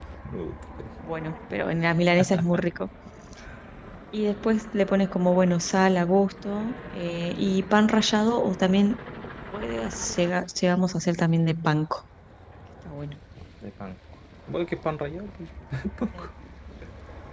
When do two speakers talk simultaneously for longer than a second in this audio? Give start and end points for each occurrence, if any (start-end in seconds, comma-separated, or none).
none